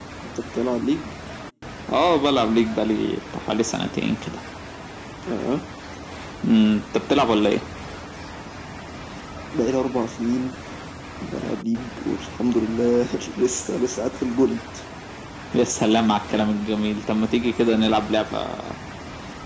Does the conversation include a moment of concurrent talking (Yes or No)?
No